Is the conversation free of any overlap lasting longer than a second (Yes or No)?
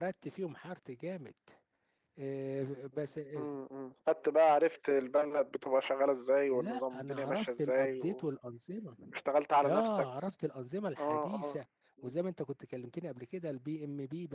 No